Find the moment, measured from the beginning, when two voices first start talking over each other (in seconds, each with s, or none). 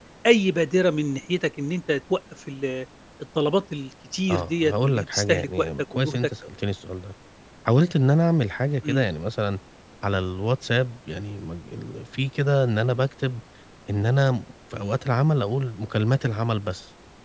4.3 s